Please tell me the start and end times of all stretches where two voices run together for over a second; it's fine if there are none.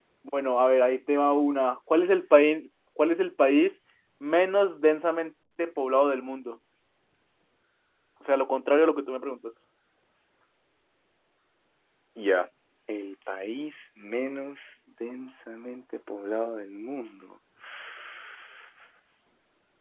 none

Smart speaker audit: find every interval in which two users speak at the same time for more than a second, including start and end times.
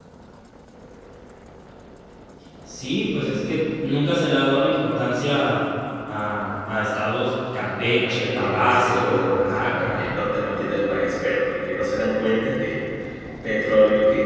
8.0-10.0

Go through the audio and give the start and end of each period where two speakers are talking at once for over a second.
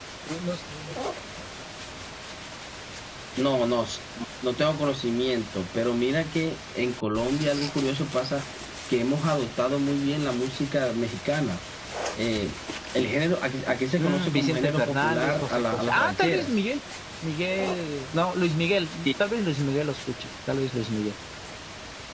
14.0-16.6

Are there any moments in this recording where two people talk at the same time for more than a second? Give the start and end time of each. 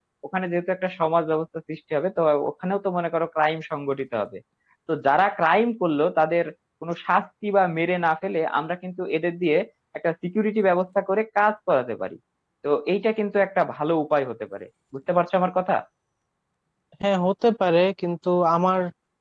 none

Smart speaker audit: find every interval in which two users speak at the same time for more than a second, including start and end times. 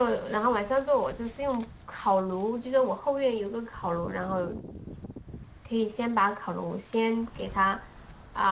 none

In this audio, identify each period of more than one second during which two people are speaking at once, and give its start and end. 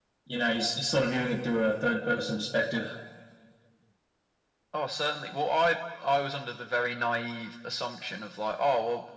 none

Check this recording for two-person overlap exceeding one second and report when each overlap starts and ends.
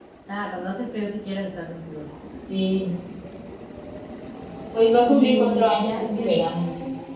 5.1-6.4

